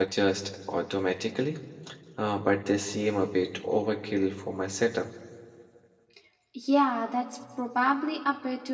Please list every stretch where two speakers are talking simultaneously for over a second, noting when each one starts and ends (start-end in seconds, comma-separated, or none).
none